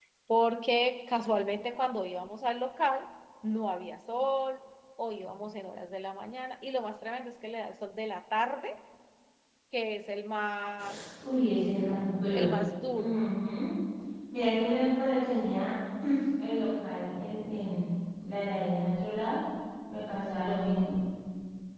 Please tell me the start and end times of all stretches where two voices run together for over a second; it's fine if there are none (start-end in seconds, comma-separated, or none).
none